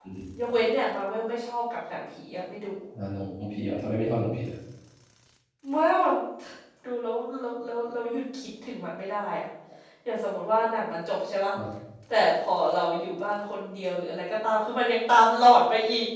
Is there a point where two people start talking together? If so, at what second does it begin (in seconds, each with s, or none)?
none